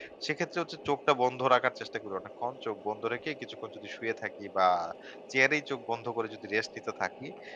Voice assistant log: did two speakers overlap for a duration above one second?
No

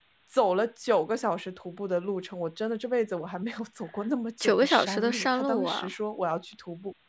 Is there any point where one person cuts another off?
Yes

